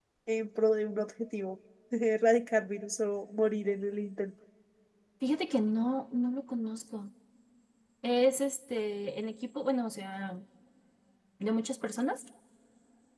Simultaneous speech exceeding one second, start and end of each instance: none

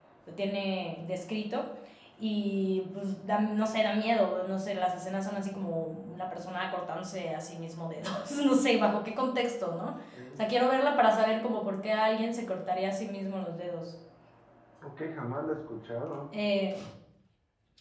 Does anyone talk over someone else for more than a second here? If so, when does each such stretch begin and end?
none

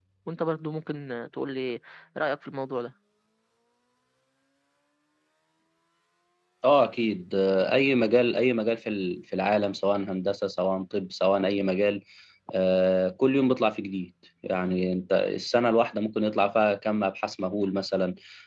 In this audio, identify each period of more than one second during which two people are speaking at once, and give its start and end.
none

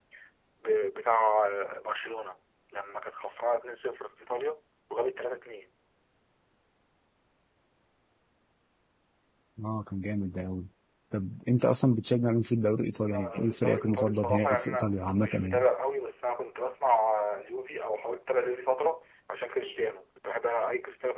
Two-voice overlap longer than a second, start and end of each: 12.9-15.6

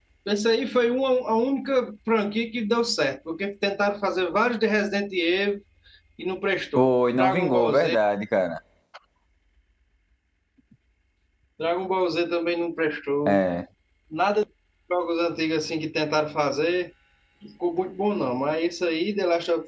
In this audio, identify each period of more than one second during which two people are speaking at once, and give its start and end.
6.8-8.0

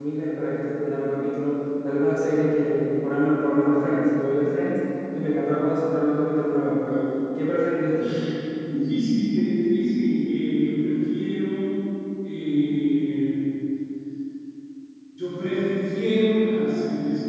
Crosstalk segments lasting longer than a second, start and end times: none

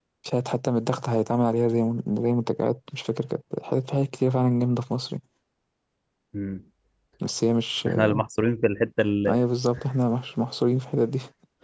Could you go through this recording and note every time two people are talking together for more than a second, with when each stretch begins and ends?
none

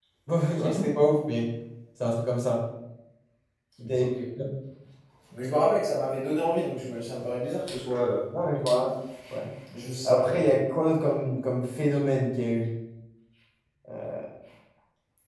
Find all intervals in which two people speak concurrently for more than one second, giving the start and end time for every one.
none

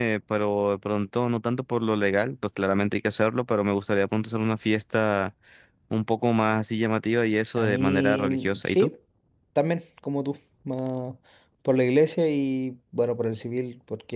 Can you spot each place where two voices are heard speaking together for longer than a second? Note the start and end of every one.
7.6-8.9

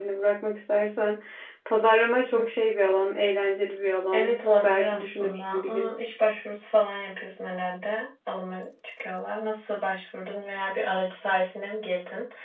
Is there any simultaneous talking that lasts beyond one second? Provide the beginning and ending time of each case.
4.1-5.9

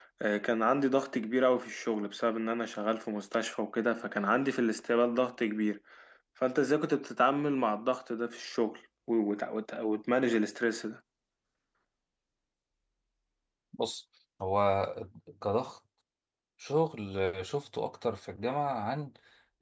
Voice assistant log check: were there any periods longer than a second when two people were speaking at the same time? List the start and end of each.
none

